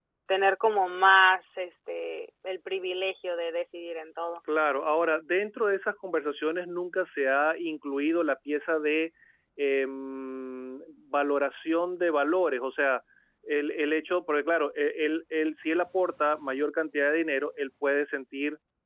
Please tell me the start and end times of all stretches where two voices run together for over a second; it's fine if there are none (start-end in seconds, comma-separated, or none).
none